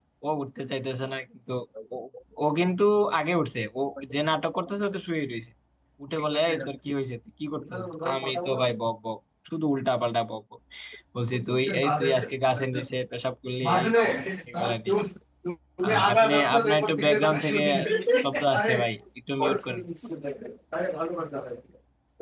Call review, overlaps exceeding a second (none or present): present